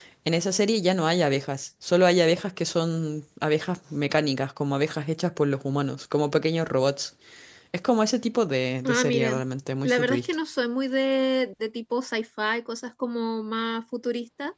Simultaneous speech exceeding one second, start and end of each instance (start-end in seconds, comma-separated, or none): none